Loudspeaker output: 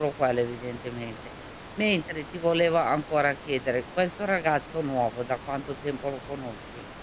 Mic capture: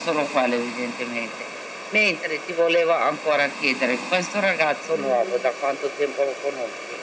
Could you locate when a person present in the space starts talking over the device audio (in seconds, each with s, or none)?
4.9 s